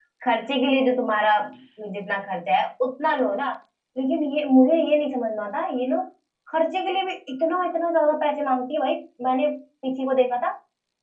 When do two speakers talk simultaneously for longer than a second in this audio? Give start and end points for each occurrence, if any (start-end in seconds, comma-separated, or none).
none